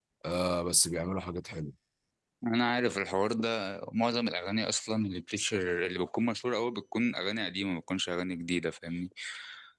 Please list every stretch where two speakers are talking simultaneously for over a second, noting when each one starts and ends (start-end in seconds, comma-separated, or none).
none